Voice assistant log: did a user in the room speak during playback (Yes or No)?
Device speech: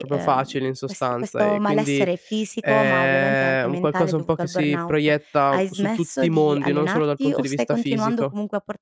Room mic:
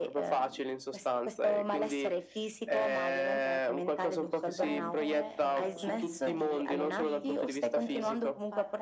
Yes